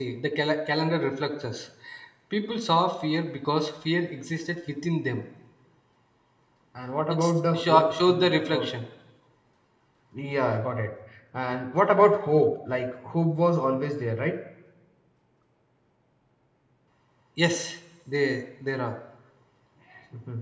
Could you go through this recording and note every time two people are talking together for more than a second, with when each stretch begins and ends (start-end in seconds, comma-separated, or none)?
7.1-8.7